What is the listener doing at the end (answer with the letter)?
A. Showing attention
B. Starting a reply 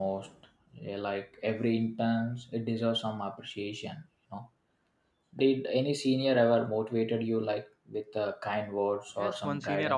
B